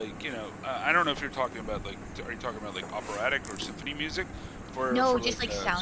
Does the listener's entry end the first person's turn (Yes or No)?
Yes